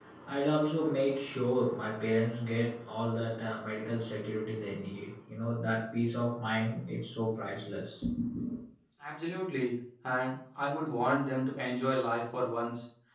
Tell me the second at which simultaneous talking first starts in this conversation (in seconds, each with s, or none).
none